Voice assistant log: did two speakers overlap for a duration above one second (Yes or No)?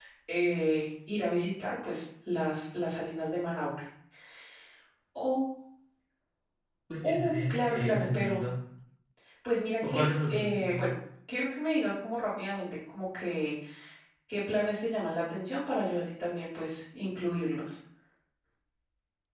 Yes